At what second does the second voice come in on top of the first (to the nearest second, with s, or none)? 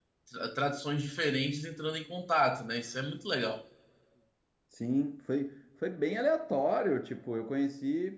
none